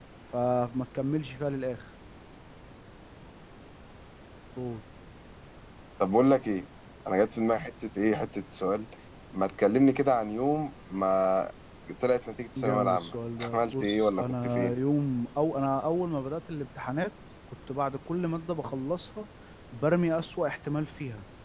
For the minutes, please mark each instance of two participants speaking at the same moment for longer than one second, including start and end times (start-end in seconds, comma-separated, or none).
12.6-14.7